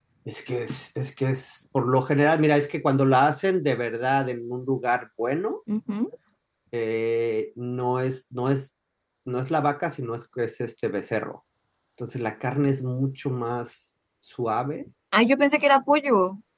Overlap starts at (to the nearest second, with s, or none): none